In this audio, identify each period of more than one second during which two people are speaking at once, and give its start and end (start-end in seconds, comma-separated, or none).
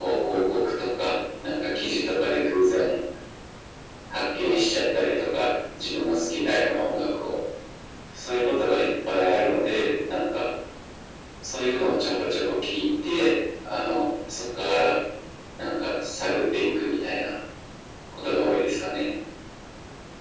none